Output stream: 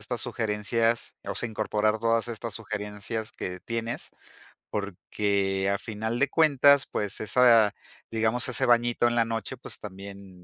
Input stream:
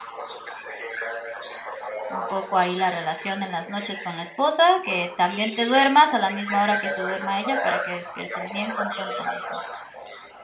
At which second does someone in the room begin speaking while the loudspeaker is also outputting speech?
2.1 s

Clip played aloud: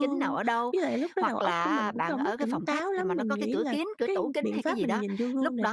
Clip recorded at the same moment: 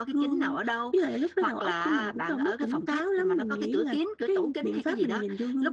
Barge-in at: none

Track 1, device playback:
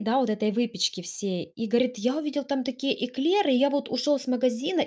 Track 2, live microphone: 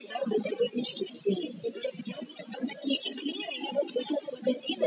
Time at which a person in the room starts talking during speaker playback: none

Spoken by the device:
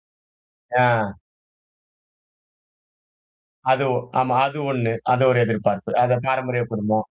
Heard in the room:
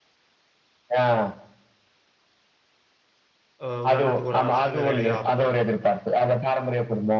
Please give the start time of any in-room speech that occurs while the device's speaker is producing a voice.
3.6 s

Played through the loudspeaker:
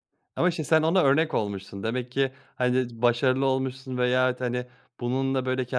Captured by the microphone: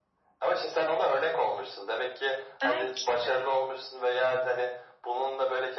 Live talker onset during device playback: 2.6 s

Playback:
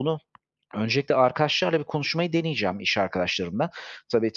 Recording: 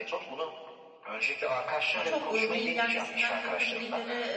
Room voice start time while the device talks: 1.9 s

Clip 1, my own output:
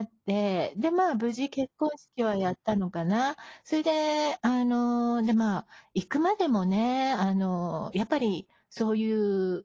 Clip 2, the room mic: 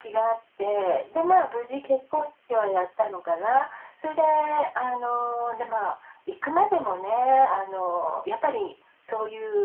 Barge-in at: none

